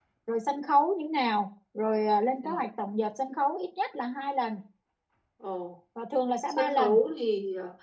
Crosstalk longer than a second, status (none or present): none